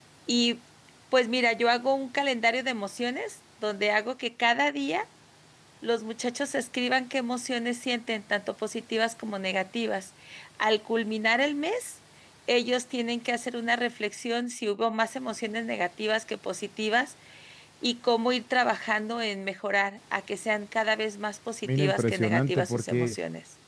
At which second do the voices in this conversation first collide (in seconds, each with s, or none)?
21.6 s